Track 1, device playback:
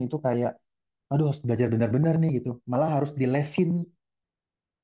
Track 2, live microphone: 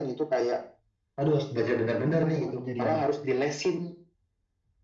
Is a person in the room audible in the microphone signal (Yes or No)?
Yes